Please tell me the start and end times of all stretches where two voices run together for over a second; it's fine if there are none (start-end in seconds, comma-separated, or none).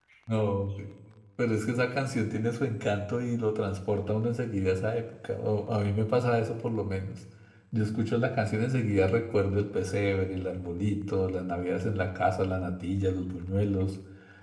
none